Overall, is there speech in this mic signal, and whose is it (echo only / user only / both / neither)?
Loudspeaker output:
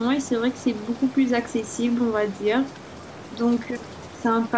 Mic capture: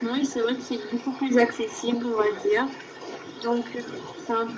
echo only